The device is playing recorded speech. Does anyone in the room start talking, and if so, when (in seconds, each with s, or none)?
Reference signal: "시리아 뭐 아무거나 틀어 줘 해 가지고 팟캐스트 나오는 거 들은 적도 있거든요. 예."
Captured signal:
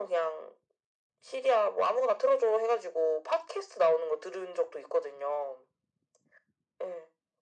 none